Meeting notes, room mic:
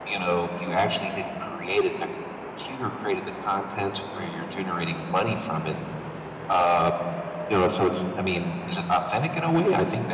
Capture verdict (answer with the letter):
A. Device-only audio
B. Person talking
A